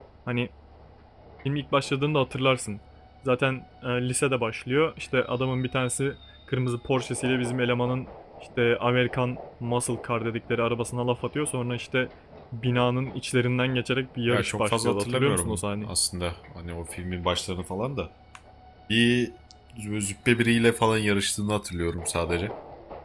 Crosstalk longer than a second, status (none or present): present